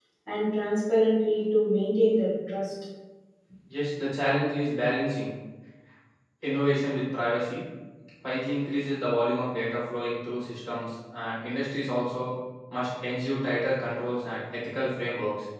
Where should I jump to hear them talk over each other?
none

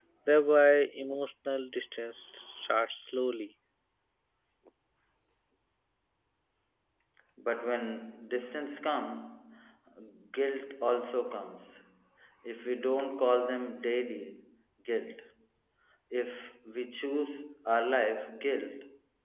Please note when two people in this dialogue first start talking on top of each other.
none

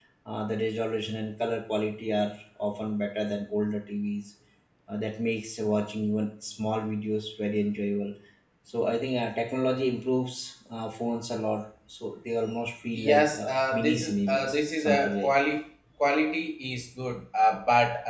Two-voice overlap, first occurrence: 13.0 s

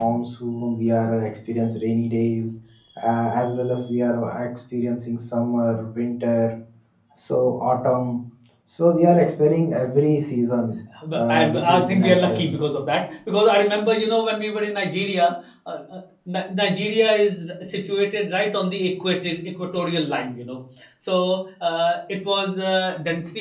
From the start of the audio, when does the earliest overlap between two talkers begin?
10.9 s

